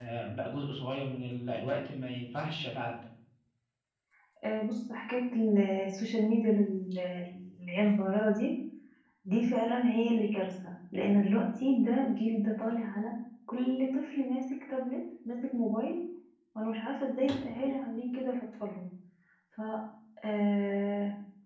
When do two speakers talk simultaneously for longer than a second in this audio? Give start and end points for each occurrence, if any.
none

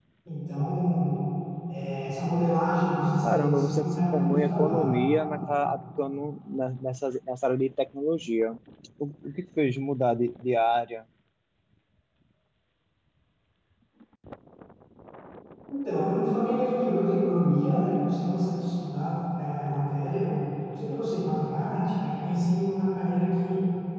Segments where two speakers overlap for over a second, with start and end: 3.2-4.9

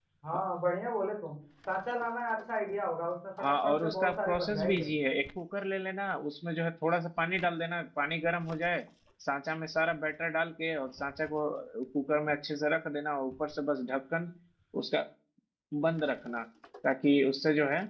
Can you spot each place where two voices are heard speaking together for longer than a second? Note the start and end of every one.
3.4-4.9

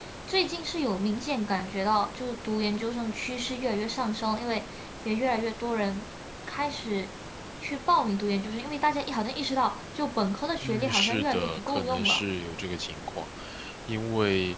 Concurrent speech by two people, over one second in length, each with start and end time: 10.7-12.2

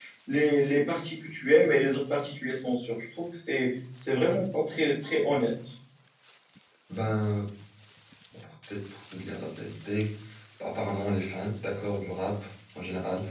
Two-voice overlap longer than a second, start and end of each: none

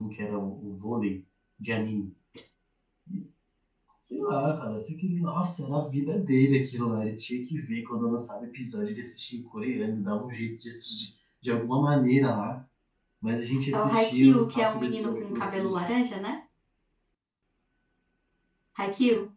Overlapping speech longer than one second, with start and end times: 13.7-15.8

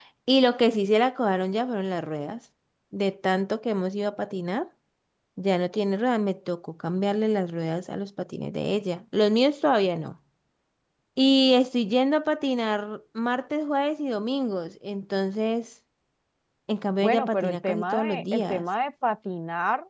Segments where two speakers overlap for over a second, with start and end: 17.0-18.6

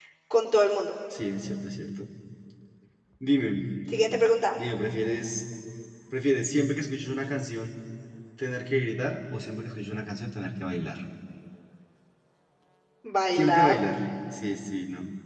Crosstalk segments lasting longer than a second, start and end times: none

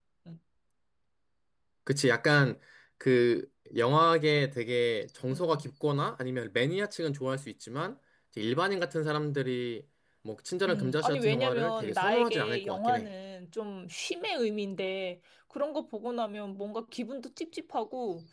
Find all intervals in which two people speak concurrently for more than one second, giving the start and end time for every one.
10.7-13.1

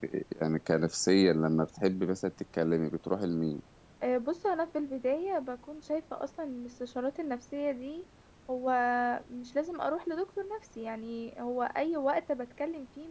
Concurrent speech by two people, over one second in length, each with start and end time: none

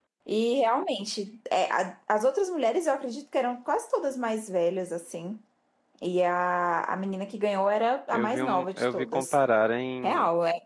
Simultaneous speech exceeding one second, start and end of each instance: 8.1-9.4

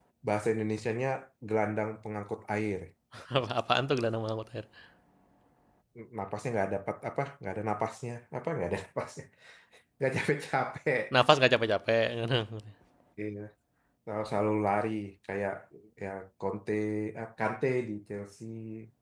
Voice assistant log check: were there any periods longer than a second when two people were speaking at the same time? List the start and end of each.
none

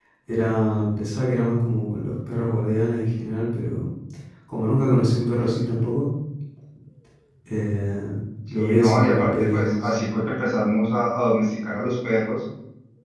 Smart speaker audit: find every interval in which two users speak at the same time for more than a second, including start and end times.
8.5-9.9

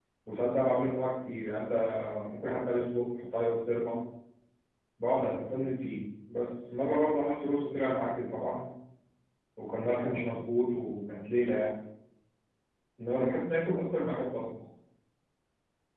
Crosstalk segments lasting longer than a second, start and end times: none

